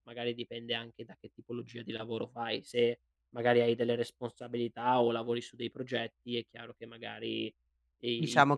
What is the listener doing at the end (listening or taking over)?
taking over